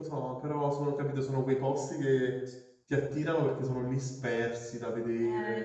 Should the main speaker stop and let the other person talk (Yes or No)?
Yes